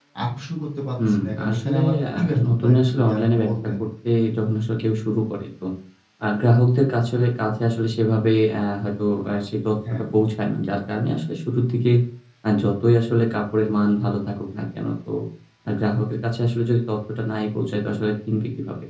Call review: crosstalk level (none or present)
present